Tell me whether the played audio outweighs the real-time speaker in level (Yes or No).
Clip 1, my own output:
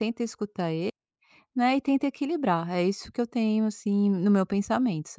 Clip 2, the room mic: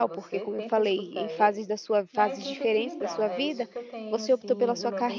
No